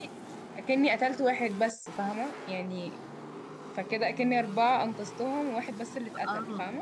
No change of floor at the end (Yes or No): No